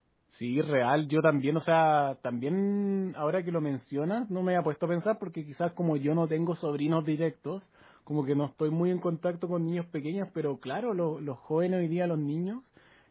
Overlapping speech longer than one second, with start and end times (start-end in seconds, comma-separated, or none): none